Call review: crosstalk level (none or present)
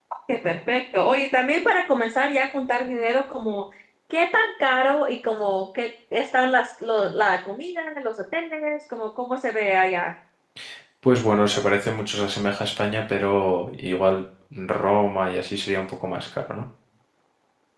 none